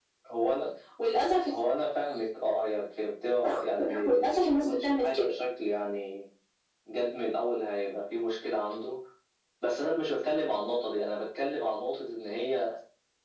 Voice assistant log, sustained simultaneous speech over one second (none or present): present